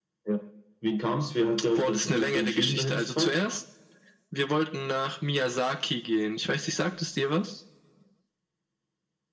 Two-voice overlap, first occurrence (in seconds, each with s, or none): 1.8 s